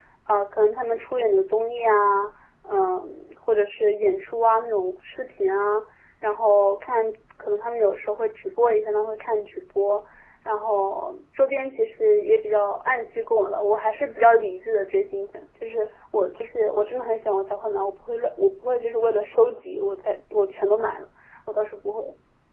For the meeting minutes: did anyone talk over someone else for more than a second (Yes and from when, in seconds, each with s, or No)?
No